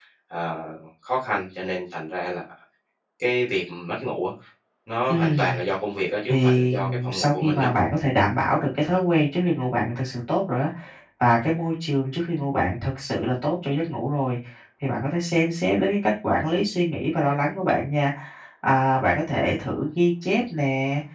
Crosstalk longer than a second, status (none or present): present